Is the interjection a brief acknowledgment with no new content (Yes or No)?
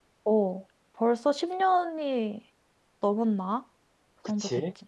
No